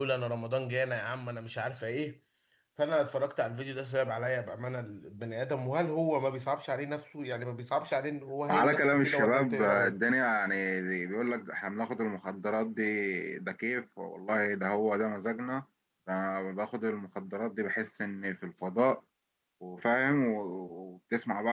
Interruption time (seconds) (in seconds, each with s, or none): 8.5 s